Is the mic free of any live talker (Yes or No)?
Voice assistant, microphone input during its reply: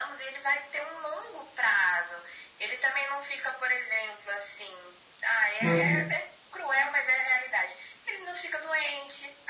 No